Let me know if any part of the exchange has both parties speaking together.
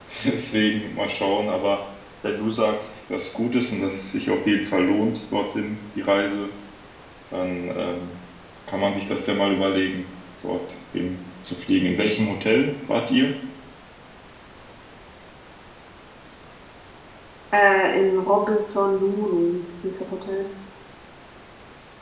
No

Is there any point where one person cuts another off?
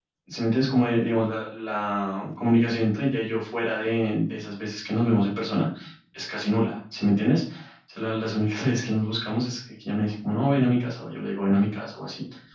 No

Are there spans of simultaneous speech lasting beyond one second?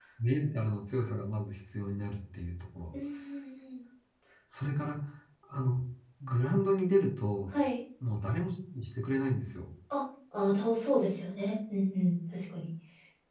No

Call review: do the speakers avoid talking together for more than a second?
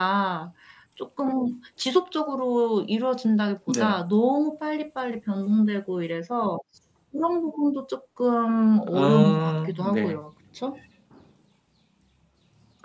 No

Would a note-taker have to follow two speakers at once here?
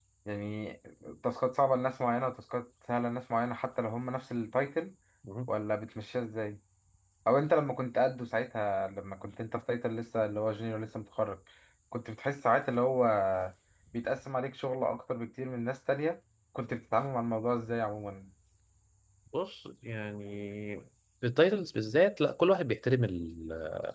No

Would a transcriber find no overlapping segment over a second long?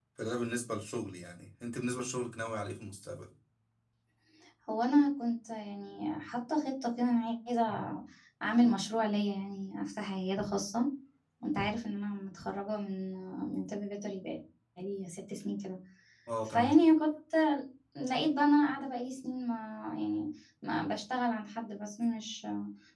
Yes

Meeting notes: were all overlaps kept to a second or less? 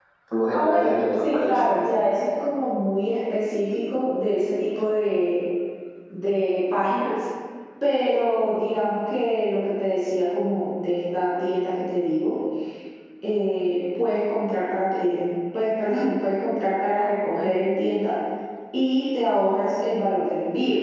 No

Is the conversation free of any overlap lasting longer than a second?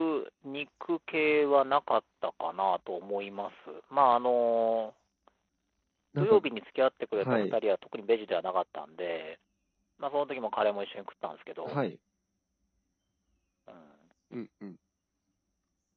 Yes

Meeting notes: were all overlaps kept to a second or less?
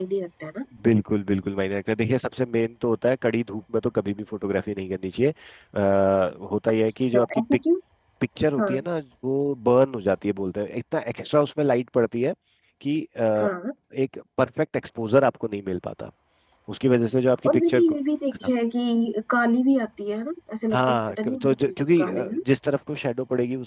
No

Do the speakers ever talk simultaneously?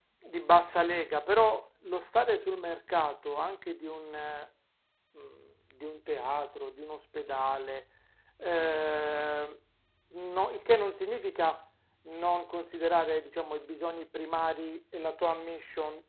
No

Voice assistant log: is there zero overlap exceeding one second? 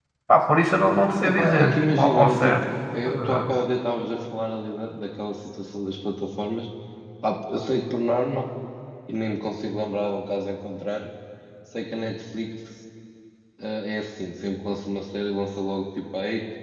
No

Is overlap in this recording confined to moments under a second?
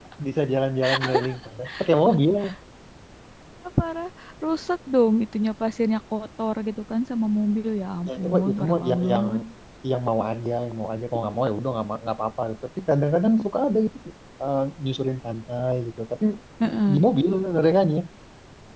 No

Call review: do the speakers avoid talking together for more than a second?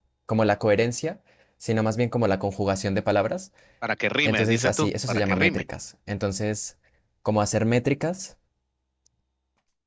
No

